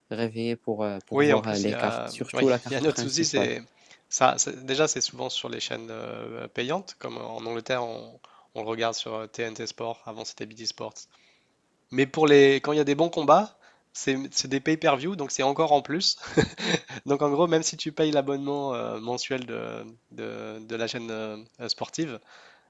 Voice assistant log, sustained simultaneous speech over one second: present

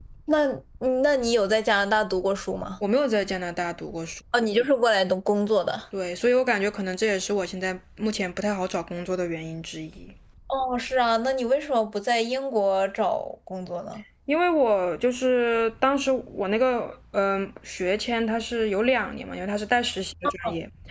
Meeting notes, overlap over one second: none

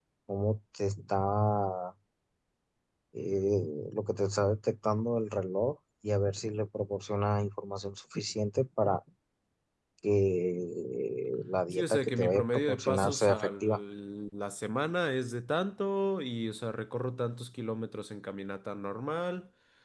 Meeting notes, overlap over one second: present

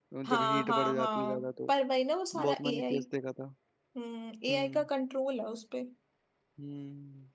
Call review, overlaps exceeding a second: present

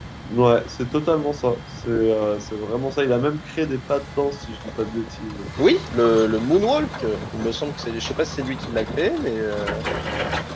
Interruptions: none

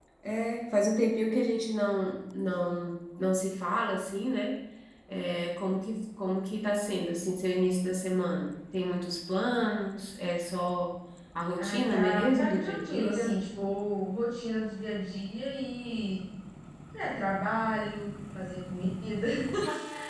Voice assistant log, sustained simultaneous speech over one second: present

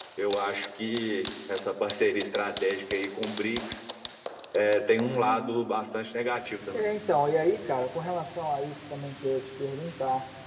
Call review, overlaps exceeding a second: none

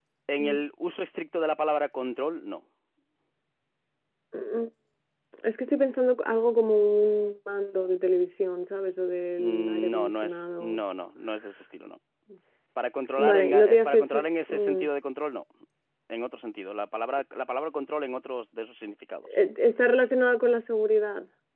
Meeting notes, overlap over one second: present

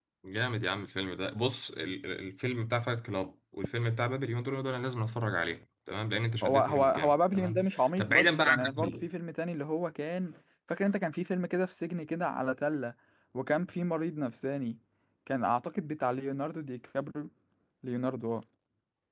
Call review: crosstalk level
present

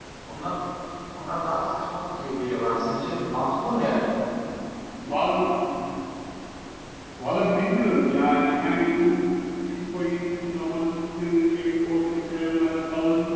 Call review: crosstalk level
none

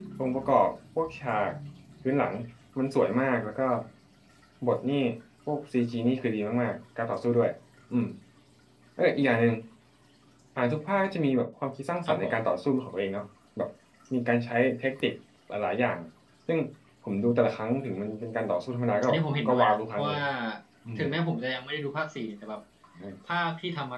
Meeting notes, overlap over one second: present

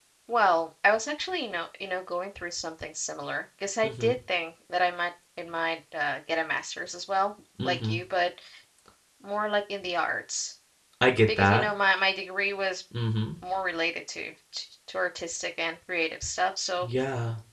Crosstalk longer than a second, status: none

